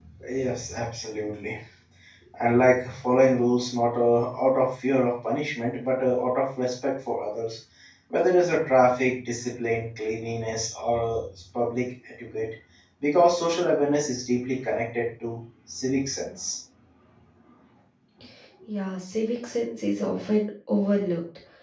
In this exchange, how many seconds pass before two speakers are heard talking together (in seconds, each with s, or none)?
none